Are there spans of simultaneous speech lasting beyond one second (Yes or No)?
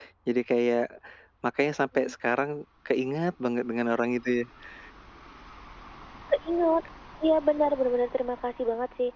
No